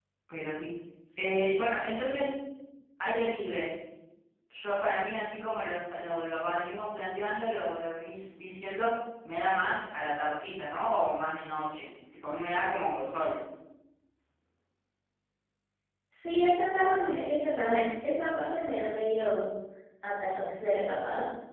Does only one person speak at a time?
Yes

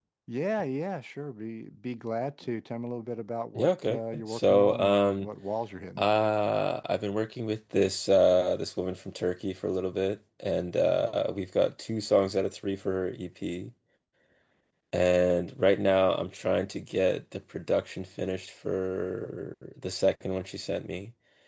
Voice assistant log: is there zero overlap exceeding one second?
No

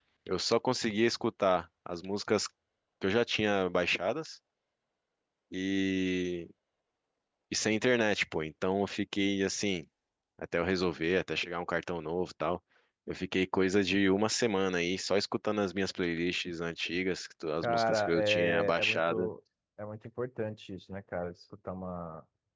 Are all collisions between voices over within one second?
No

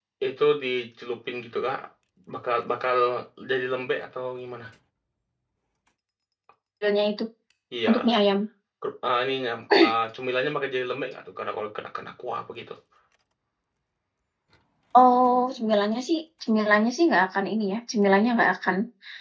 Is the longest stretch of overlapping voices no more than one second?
Yes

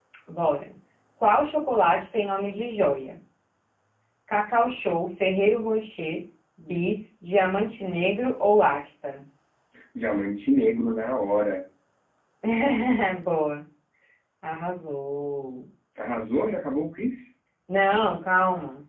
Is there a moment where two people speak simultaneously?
No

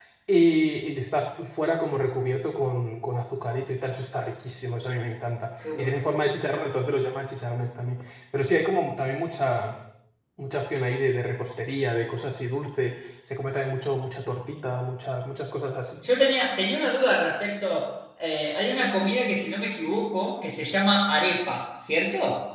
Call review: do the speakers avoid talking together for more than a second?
Yes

